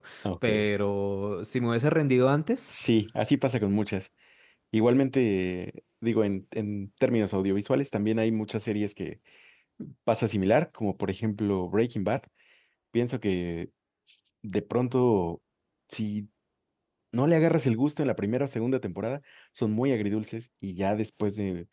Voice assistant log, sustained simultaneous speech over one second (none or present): none